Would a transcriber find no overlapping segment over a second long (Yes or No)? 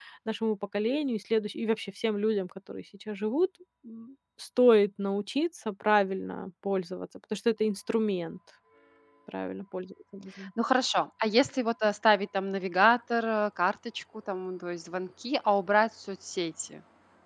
Yes